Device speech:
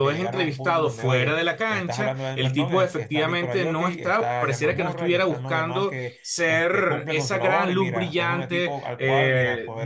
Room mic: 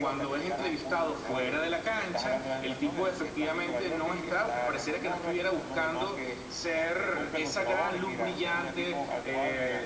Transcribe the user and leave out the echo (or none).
none